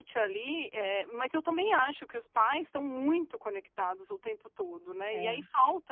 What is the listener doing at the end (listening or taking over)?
listening